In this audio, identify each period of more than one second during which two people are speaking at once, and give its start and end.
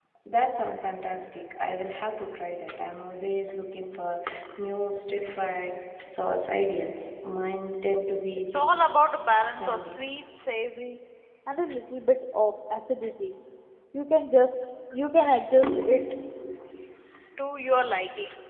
8.4-9.9

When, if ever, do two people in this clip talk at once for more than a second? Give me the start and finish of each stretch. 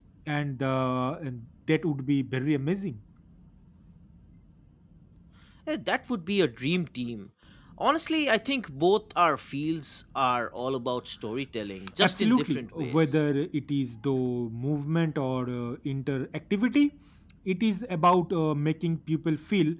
12.0-13.2

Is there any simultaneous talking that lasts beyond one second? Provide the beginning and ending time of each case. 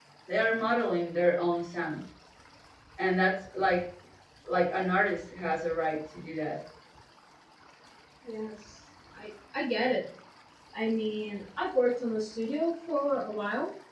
none

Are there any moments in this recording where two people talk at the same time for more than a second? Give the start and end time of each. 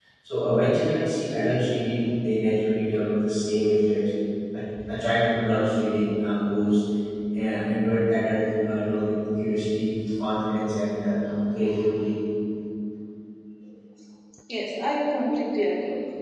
none

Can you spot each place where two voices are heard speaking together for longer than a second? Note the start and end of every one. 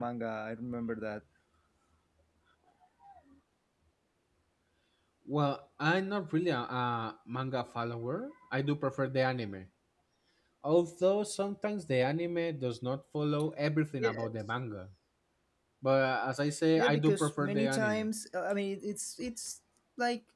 16.8-18.1

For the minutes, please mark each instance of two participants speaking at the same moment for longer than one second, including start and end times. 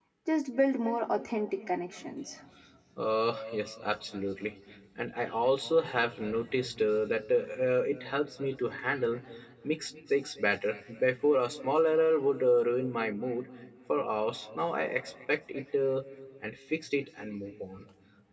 none

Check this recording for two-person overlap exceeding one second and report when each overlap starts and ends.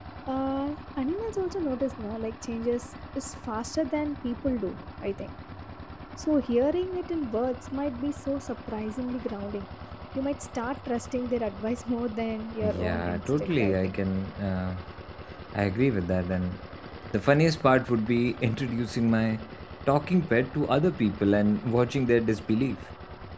12.6-14.0

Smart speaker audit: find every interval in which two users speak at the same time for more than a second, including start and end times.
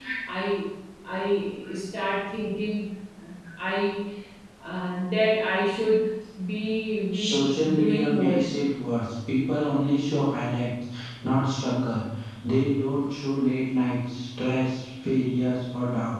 7.1-8.4

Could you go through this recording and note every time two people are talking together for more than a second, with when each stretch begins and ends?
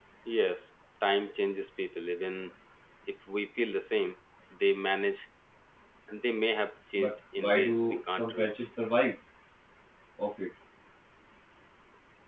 7.0-8.7

